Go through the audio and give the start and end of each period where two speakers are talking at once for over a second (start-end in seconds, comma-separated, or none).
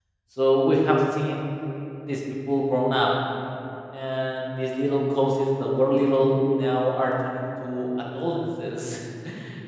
none